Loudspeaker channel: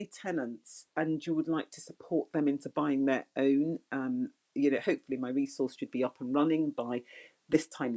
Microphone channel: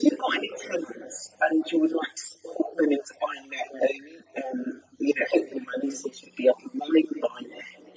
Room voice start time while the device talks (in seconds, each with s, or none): none